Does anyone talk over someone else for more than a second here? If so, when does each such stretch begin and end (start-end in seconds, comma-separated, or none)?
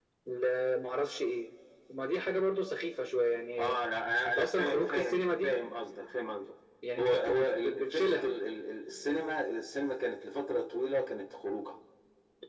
4.2-5.6, 7.0-8.3